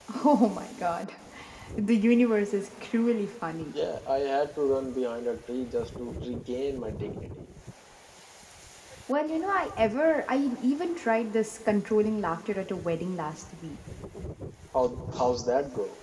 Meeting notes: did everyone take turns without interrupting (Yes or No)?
Yes